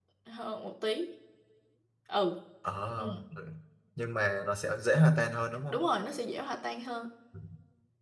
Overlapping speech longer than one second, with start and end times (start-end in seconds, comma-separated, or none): none